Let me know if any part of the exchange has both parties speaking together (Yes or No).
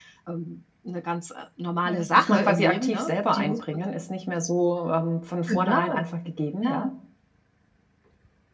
Yes